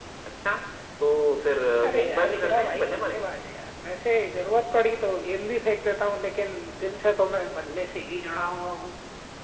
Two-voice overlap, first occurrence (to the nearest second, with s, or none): 2 s